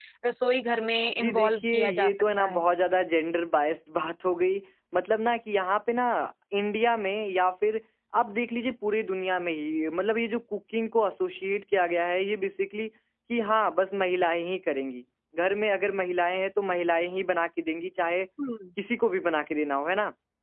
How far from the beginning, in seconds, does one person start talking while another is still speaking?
1.2 s

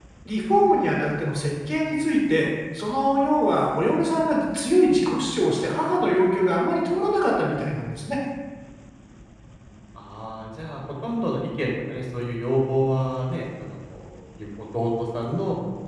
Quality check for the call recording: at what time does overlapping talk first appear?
none

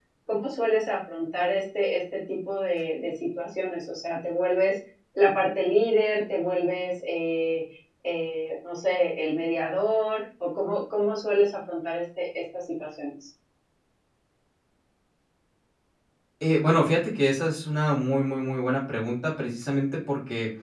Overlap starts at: none

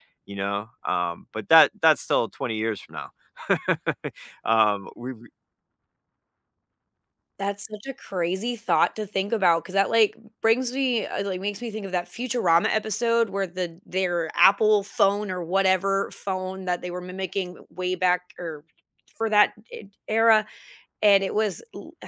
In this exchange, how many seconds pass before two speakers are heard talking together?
none

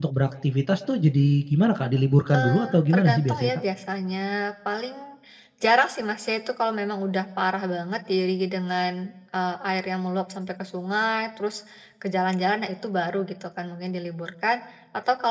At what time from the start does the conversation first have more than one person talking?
2.3 s

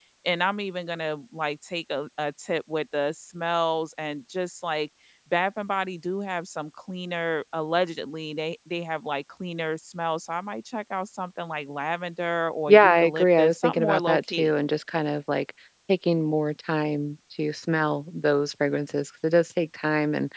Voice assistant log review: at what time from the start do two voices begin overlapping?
12.7 s

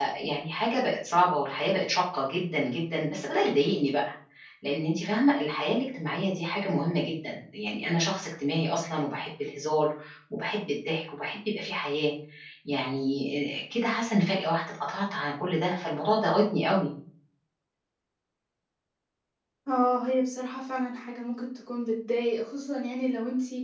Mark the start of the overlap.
none

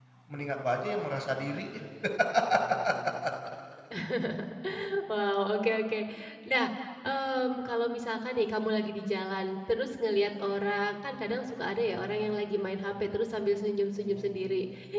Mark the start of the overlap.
none

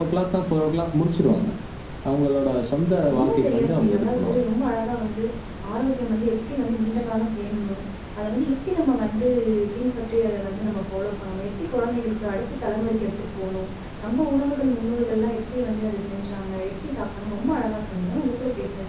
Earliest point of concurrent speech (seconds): 3.1 s

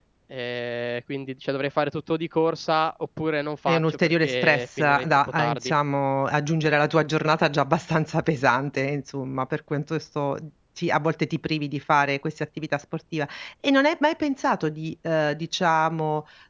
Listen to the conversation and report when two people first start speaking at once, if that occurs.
3.7 s

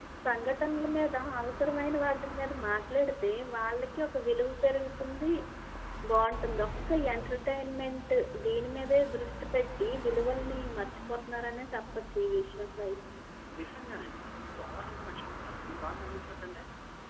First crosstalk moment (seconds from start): none

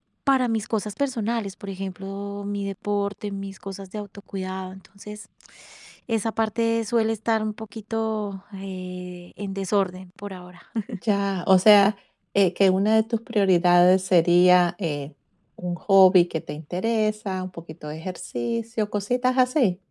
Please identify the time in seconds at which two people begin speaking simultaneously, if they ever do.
none

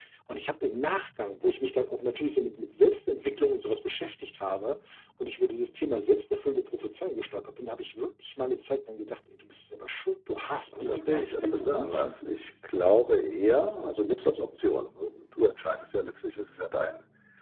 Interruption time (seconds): 10.7 s

